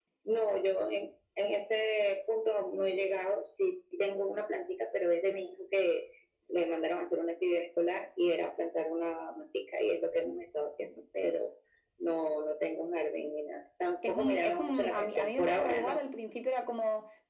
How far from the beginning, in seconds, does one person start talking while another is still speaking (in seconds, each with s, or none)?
14.0 s